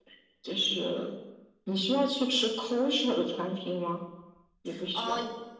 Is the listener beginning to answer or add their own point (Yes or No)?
Yes